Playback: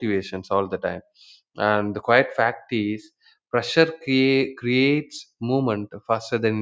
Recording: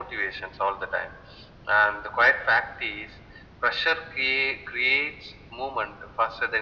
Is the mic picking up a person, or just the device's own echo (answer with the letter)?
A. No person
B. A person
A